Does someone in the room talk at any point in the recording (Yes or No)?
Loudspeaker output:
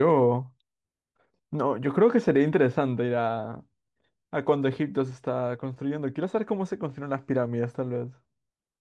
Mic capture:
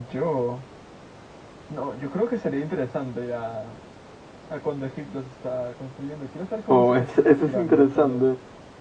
Yes